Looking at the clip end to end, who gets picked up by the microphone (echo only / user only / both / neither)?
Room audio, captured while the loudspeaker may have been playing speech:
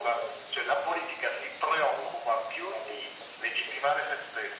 echo only